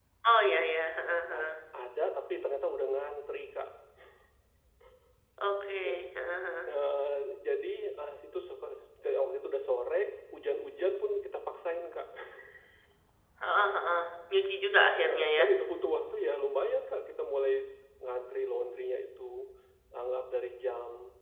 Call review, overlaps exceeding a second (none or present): none